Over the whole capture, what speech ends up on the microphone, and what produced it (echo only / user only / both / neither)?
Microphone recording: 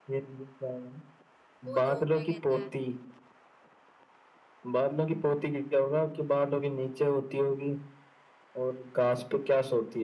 both